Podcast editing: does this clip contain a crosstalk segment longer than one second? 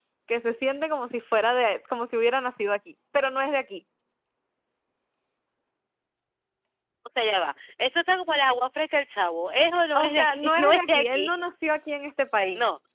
Yes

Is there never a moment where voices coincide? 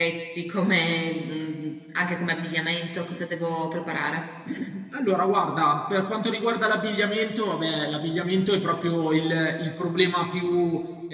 Yes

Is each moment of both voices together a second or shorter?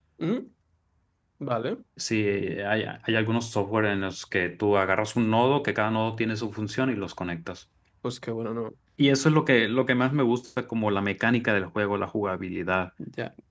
Yes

